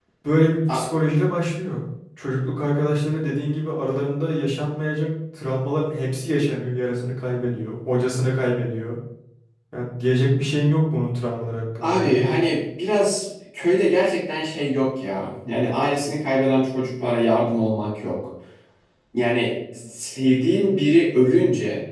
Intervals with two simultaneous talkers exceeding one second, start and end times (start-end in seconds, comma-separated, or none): none